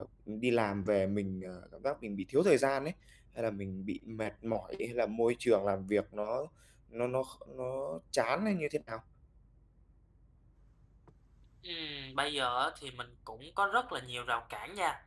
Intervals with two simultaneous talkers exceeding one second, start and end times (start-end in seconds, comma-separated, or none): none